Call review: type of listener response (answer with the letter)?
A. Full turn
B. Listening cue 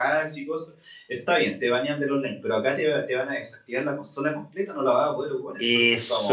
A